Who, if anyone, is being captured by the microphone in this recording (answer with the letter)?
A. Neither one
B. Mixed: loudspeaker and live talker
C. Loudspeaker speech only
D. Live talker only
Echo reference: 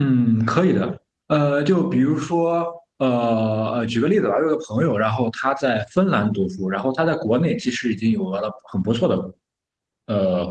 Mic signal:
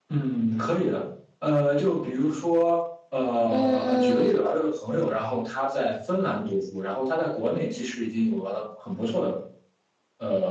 B